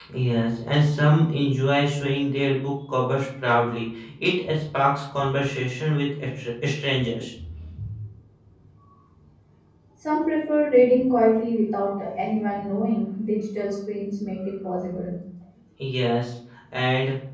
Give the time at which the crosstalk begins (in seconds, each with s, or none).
none